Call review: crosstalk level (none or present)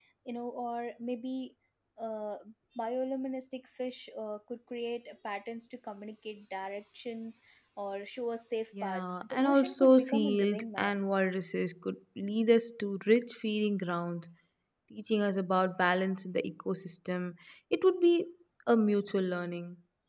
present